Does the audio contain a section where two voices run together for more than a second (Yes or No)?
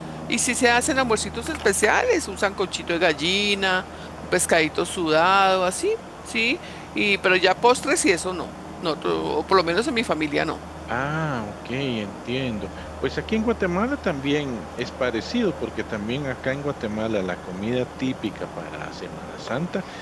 No